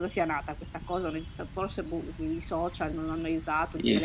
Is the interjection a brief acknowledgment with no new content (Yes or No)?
No